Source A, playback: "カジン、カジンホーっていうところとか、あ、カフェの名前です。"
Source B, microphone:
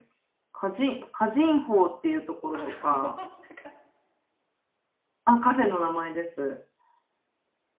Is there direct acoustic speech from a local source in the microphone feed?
Yes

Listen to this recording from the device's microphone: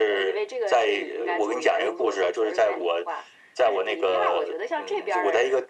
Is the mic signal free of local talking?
Yes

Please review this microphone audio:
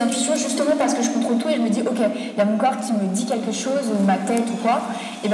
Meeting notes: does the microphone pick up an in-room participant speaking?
No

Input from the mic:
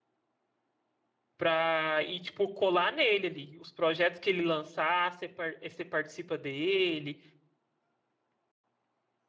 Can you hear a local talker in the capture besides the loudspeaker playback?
Yes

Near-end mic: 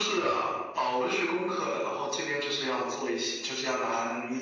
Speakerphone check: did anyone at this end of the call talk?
No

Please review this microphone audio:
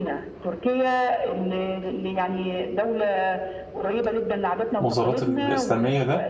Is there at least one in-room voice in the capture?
Yes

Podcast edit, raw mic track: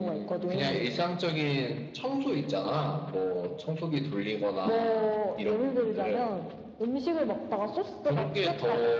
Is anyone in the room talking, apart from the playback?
No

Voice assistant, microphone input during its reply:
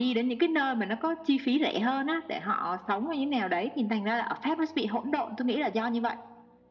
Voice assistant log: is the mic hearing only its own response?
Yes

